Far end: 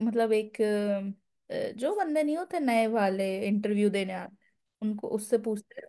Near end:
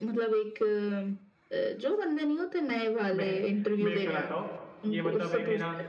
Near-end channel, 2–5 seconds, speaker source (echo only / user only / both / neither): both